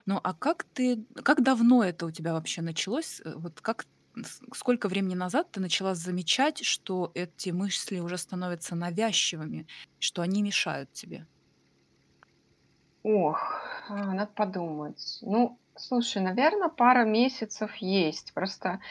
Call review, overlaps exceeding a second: none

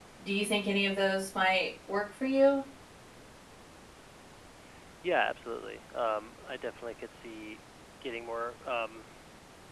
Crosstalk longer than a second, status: none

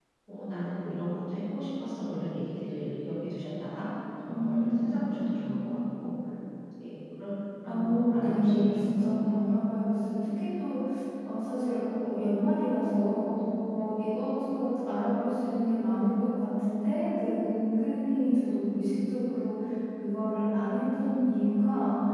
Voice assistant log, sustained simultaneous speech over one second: present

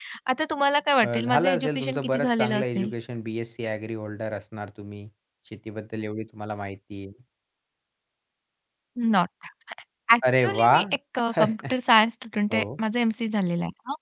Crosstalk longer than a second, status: present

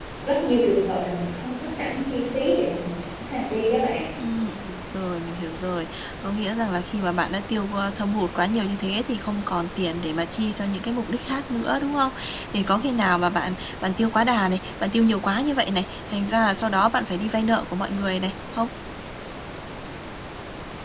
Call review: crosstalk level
none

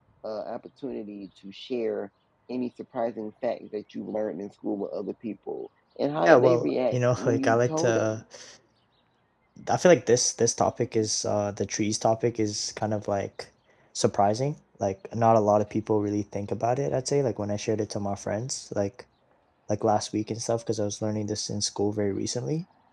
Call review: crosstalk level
present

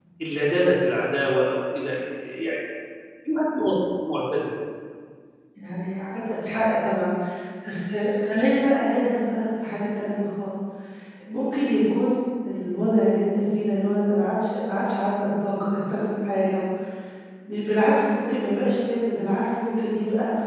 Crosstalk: none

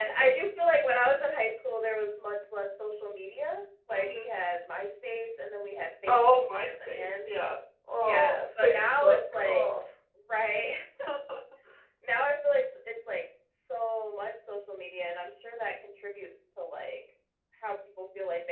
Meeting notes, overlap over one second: present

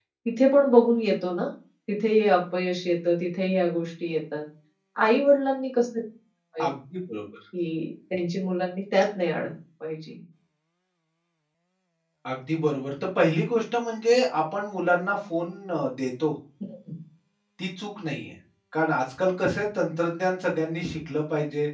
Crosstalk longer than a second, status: none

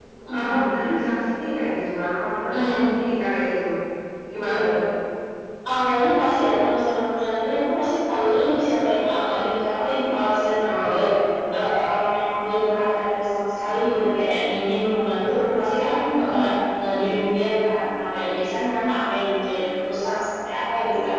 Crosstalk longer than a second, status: none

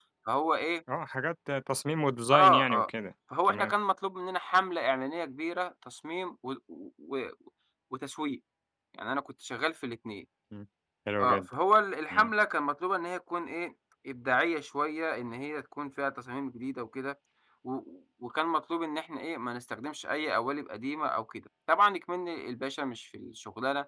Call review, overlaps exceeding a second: none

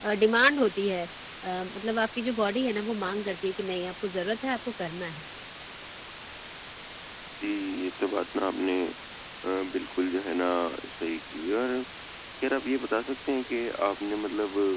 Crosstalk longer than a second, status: none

